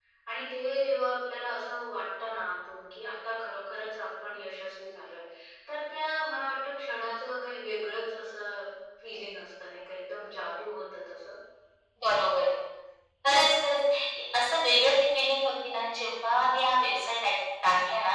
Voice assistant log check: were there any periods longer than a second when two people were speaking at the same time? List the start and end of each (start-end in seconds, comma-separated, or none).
none